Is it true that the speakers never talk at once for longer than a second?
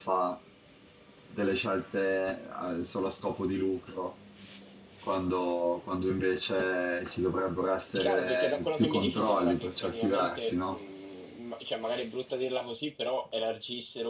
No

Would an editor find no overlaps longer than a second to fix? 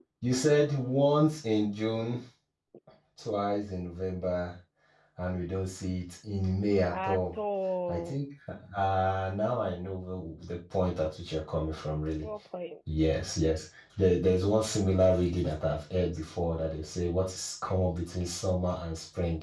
Yes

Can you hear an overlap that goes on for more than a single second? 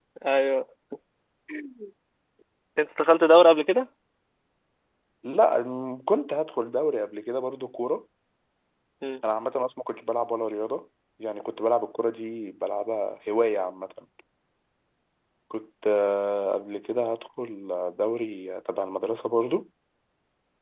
No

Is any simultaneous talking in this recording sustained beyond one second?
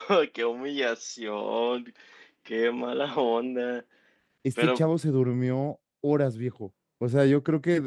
No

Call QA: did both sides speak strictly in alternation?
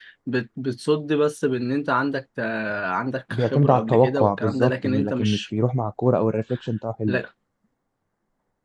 No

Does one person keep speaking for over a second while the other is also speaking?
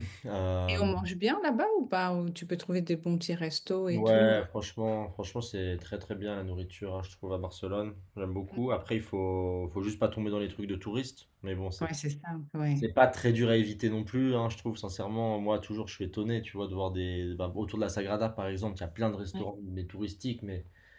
No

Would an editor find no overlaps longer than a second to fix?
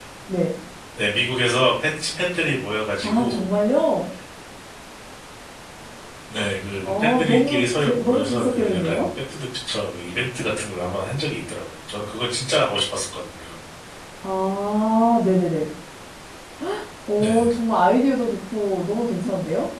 No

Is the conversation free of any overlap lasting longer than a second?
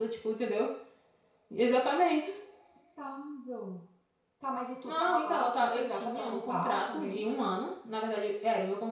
No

